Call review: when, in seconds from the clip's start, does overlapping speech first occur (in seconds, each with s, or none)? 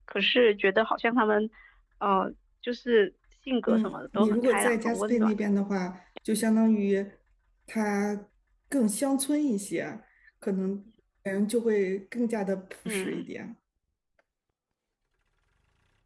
3.7 s